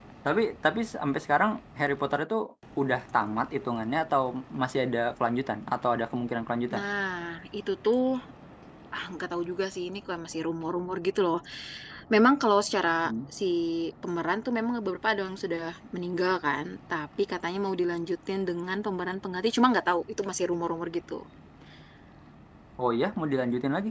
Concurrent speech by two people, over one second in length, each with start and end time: none

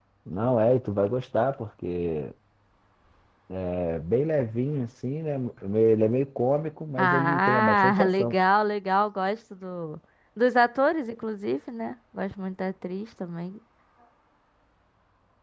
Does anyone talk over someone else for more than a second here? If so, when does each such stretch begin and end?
7.0-8.4

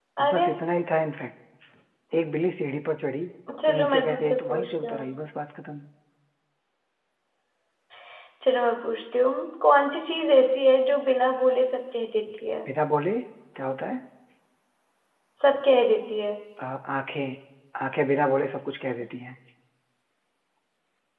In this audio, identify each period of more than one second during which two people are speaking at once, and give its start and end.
3.6-5.0

